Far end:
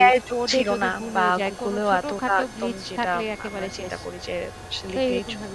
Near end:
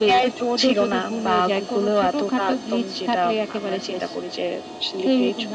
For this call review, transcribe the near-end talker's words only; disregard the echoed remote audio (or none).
none